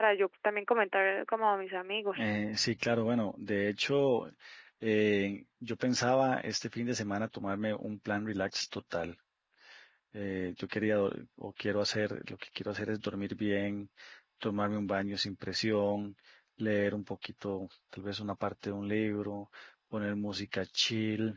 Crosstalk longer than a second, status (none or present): none